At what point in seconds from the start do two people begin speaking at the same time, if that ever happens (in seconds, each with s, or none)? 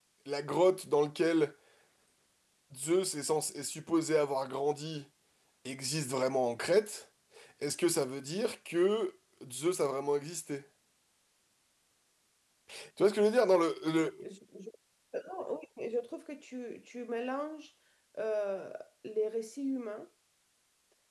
none